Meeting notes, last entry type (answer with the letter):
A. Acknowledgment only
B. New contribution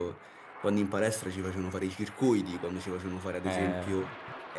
A